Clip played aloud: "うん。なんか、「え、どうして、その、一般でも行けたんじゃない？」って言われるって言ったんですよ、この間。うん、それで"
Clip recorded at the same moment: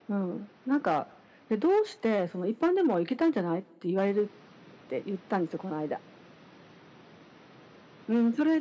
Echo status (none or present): present